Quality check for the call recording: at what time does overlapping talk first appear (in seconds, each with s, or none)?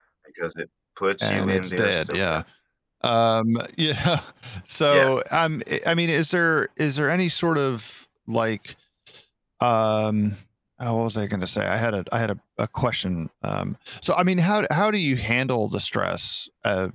1.2 s